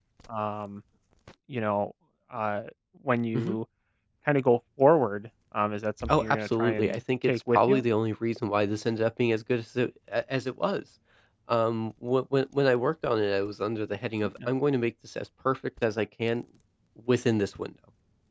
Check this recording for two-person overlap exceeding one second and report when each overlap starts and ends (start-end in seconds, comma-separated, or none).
6.1-7.8